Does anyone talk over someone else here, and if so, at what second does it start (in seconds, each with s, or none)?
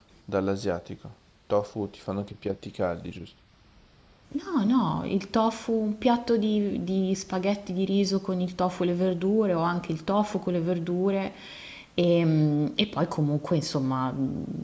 none